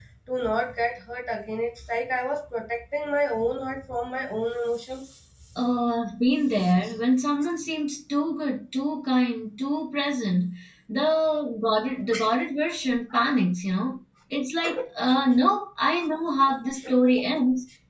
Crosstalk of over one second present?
No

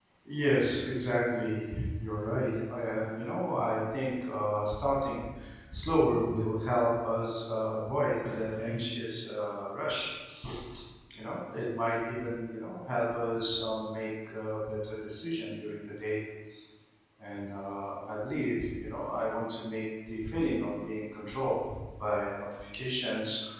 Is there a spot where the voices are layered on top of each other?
No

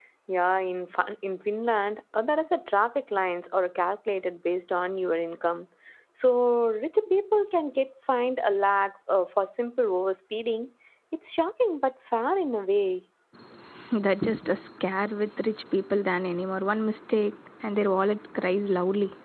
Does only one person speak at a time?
Yes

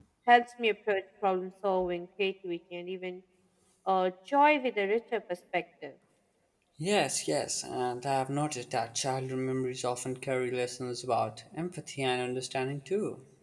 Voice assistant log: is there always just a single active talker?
Yes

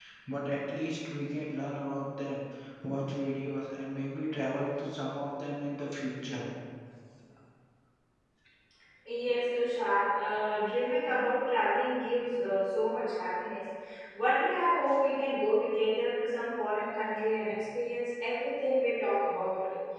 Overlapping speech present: No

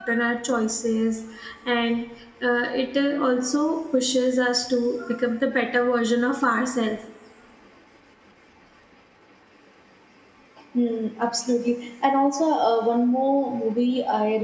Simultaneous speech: No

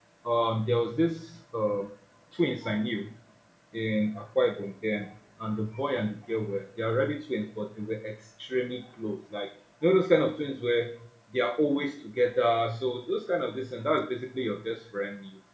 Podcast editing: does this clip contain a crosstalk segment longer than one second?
No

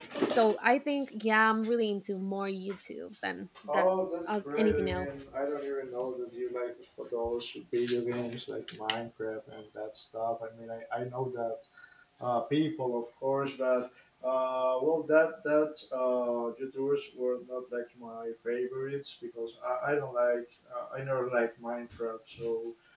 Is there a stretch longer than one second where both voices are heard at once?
Yes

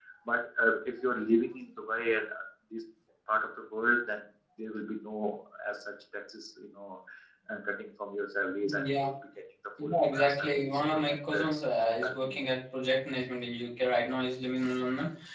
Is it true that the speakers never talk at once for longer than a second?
No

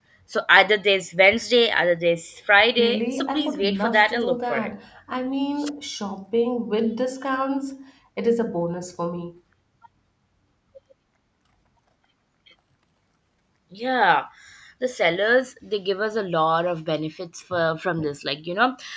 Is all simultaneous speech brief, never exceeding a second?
No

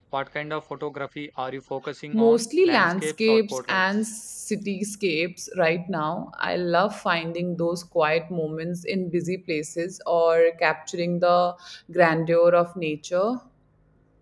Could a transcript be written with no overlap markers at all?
No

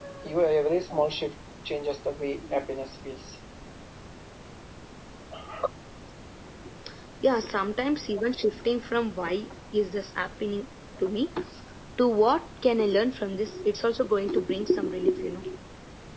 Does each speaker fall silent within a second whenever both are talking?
Yes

